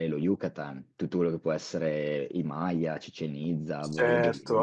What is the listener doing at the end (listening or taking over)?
taking over